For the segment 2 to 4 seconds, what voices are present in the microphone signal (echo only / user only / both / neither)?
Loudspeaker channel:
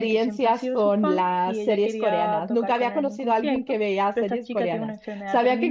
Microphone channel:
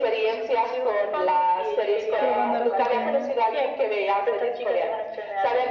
both